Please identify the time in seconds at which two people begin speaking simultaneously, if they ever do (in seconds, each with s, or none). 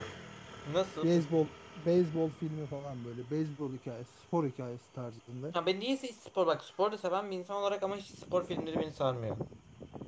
none